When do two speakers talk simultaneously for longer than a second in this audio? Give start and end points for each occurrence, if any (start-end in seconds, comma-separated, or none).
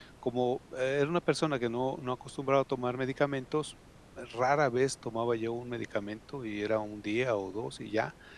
none